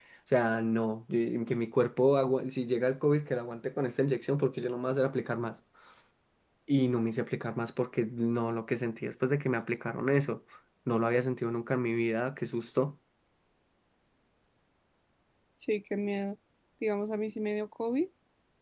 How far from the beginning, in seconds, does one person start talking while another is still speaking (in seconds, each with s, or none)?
none